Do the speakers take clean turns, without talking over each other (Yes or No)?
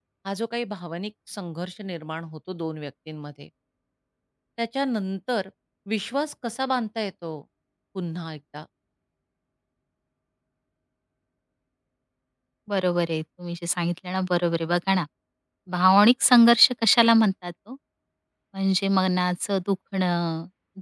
Yes